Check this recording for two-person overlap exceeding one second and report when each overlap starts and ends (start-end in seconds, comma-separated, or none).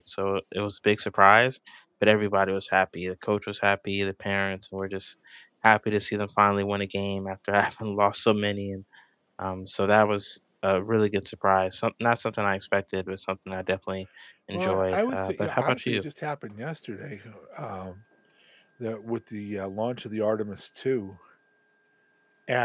14.5-16.0